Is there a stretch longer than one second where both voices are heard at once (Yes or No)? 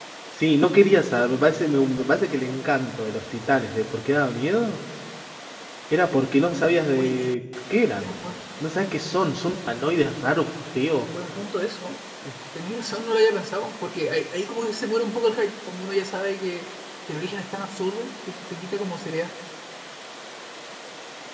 No